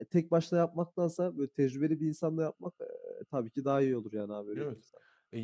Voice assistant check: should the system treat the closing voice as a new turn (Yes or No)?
Yes